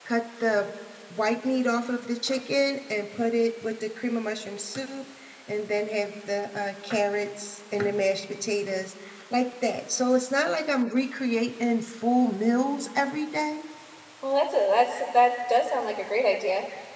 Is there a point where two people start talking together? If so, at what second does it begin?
none

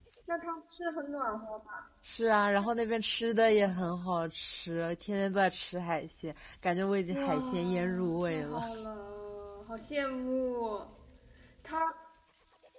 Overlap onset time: 7.1 s

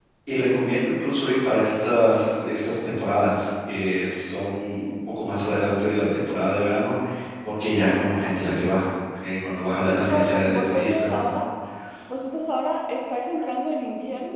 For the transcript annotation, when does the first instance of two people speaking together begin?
10.1 s

